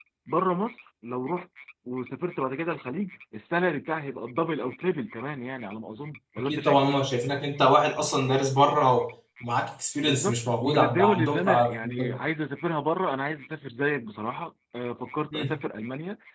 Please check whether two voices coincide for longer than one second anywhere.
Yes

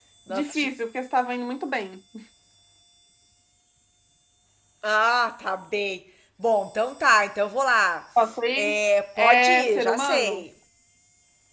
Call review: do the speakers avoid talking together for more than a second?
No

